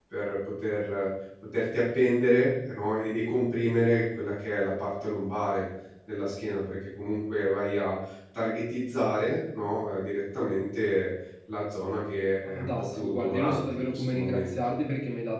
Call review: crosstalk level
present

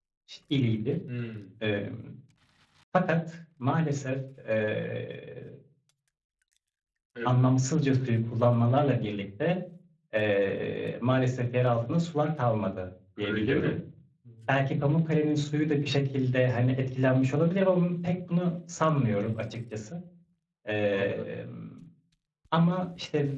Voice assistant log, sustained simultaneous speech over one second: none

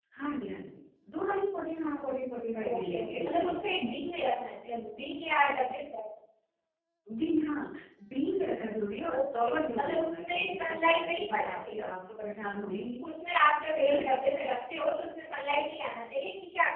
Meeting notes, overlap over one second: present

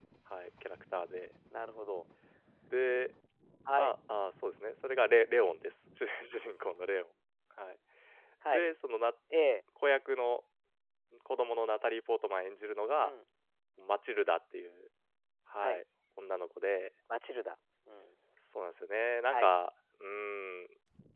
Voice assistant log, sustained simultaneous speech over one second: none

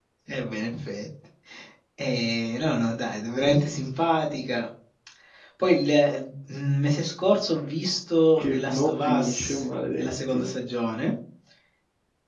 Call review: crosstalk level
present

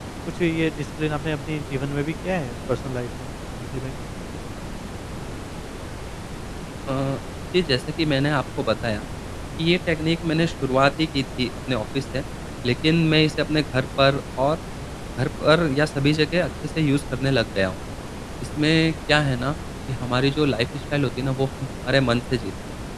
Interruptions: none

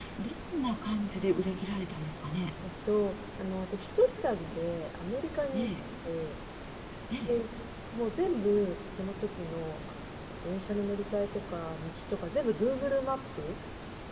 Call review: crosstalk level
none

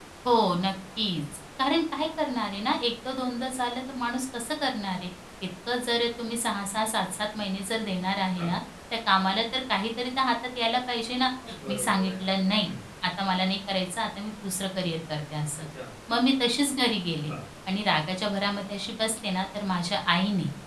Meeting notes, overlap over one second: none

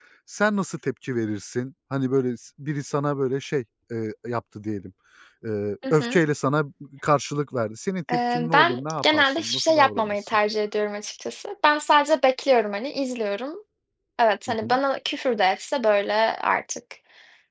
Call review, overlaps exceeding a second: present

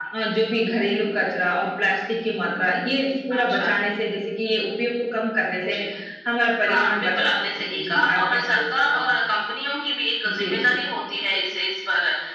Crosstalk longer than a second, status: present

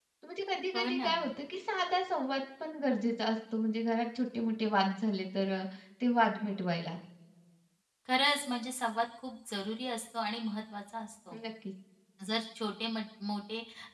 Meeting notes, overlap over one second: none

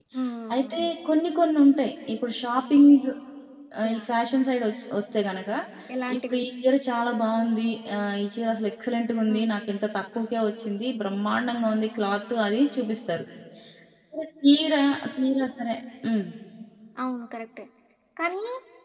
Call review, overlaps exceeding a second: none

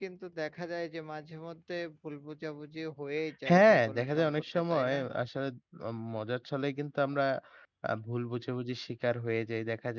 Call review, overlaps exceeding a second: present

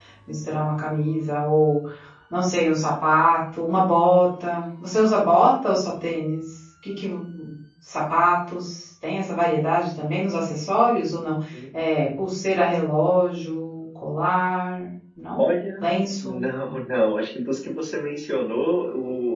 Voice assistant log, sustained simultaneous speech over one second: none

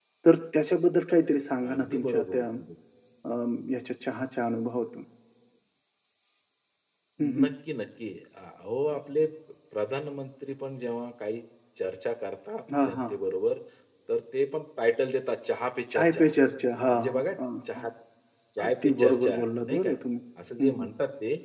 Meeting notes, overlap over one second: present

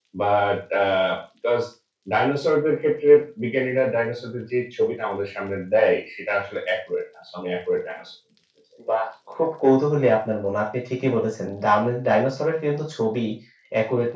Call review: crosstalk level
none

